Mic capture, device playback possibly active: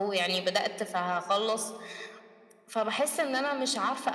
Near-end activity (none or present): none